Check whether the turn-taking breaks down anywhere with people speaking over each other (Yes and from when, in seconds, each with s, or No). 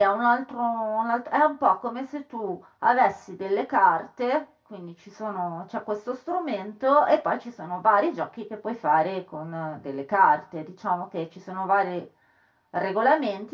No